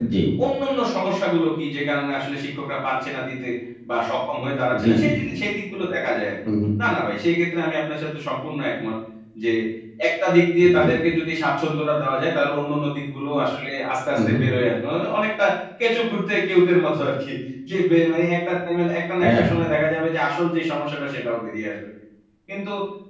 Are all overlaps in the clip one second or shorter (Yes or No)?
Yes